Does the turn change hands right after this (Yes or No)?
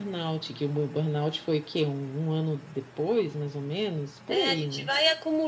Yes